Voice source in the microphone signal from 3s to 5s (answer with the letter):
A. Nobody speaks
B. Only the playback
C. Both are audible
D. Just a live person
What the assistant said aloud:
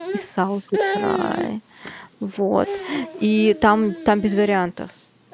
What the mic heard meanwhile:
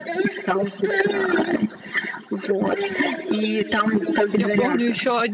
C